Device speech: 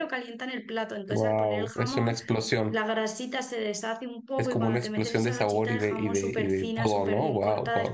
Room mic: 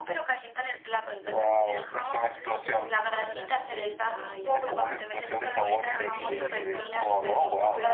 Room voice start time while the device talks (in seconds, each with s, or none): 2.3 s